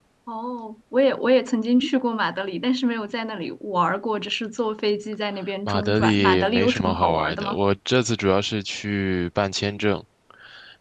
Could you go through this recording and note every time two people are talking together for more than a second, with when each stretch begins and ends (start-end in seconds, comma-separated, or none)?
5.7-7.5